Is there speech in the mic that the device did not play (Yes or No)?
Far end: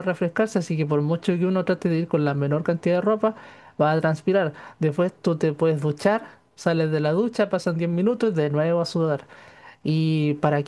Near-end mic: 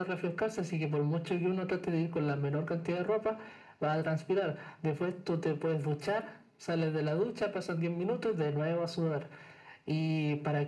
No